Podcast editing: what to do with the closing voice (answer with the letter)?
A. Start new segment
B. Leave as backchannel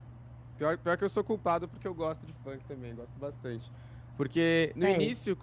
B